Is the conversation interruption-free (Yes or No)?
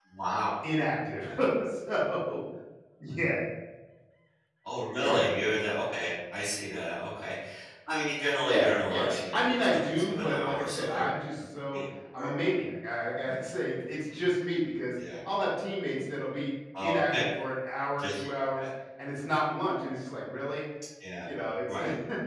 No